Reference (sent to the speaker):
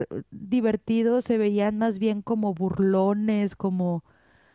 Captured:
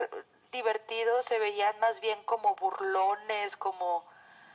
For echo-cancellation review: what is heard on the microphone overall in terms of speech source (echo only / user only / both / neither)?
echo only